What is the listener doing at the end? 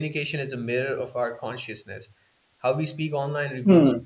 listening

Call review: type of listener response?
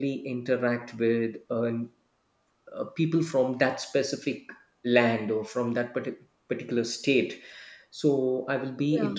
listening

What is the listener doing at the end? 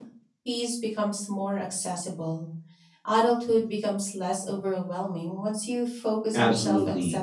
taking over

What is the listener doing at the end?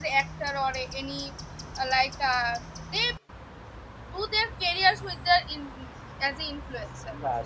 taking over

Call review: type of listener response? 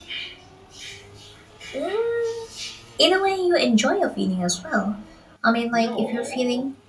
listening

